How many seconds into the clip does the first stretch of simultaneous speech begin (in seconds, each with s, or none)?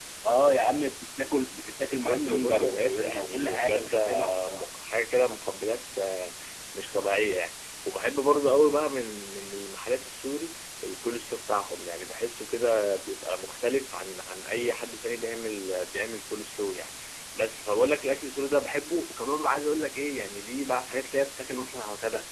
2.0 s